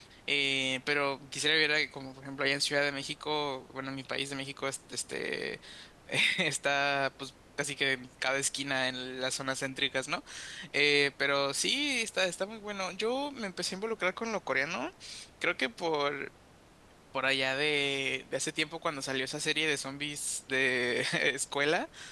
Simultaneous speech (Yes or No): No